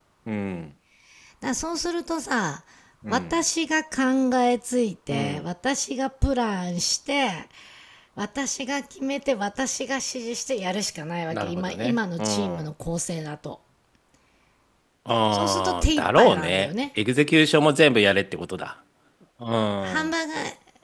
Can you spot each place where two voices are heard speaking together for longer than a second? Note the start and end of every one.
11.3-12.7, 15.3-16.7

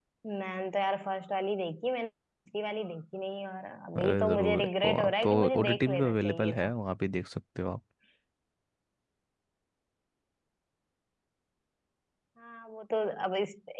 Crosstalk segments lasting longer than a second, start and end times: 4.0-6.7

